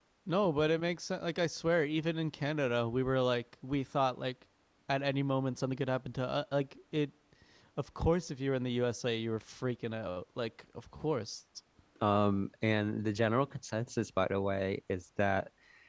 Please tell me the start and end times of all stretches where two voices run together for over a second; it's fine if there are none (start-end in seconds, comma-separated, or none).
none